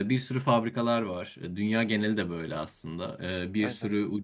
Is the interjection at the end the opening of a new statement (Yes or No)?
No